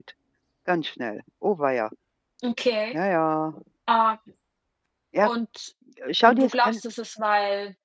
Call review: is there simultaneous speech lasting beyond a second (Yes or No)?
No